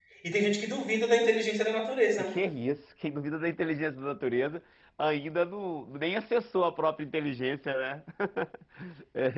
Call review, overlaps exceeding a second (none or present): none